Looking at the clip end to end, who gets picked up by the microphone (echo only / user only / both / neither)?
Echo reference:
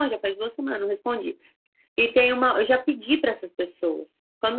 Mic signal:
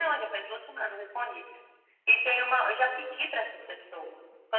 echo only